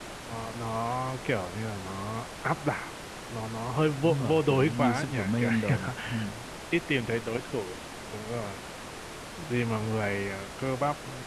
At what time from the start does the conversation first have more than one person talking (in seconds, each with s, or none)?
4.0 s